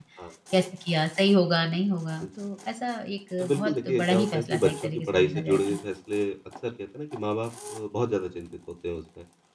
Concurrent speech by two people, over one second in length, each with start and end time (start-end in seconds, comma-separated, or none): 3.4-5.8